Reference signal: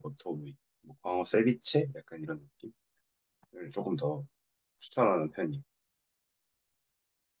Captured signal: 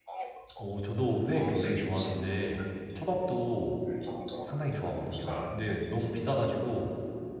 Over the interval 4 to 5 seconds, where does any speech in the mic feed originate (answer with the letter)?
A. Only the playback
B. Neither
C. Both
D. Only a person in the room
C